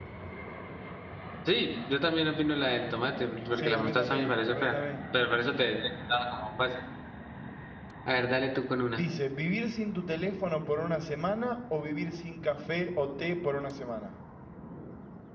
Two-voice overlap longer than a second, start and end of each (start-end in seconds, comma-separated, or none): 3.6-4.8